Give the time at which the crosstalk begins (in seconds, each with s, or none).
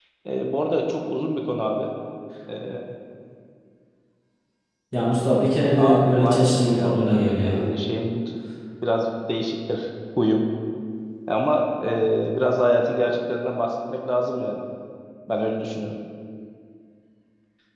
5.8 s